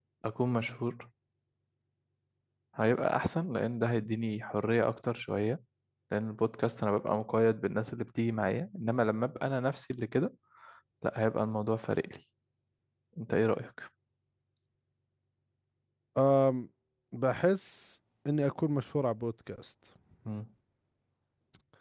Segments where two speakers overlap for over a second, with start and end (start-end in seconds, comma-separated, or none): none